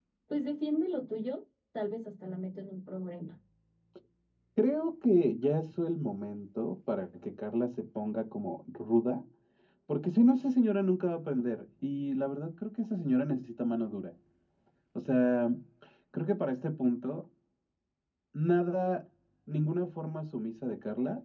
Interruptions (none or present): none